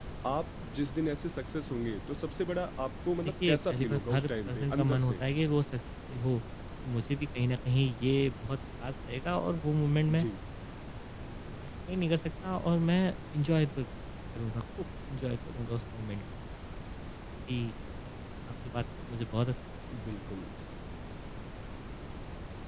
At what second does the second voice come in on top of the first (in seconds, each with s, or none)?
3.2 s